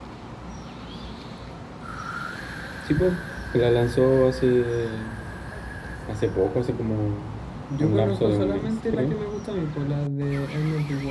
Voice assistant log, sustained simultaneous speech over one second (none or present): present